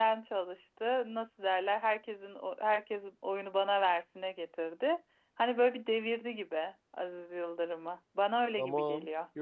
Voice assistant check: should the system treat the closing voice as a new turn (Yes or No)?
Yes